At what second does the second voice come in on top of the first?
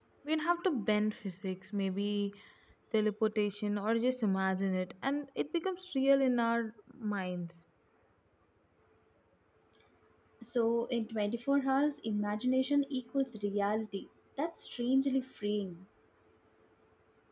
none

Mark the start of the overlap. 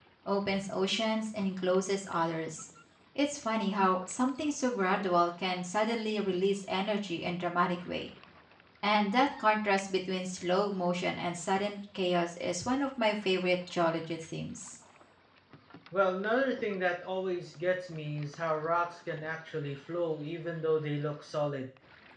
none

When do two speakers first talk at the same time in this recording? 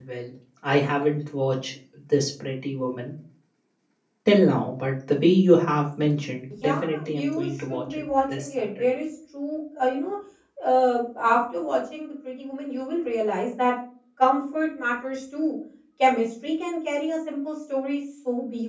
6.6 s

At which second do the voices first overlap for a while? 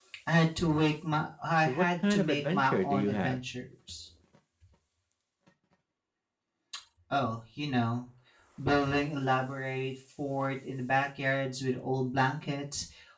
1.6 s

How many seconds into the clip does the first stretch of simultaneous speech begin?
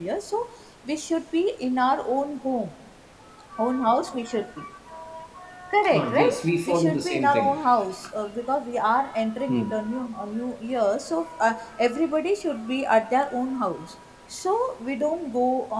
5.9 s

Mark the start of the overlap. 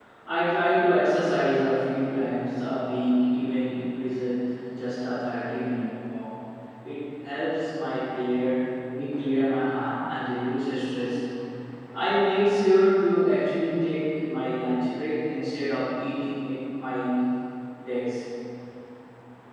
none

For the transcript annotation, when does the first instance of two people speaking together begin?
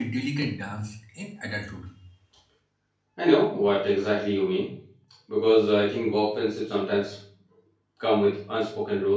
none

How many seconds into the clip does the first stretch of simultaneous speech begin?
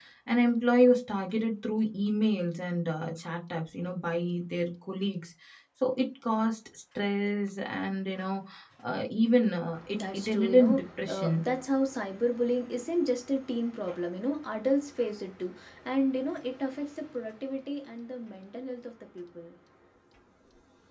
9.7 s

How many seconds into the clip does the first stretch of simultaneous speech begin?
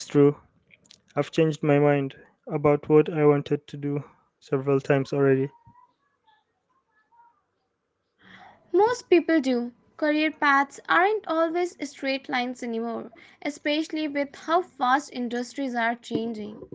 none

